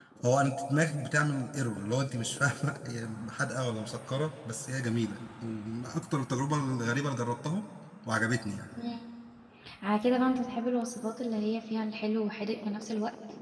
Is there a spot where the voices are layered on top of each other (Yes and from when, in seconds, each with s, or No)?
No